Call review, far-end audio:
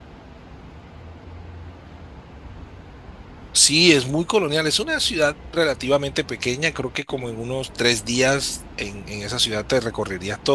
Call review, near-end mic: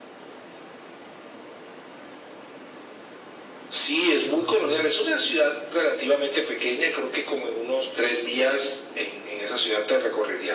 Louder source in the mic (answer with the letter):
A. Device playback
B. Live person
A